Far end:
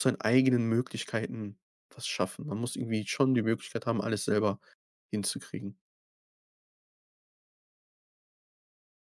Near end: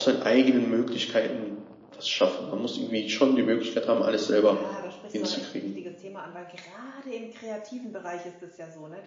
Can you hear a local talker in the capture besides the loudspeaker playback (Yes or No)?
Yes